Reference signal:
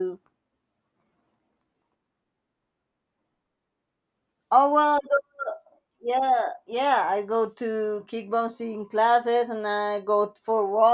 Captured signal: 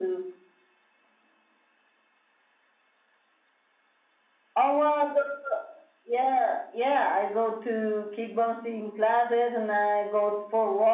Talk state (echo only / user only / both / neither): echo only